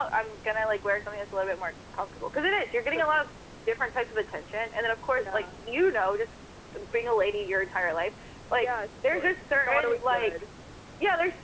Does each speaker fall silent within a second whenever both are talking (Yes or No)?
No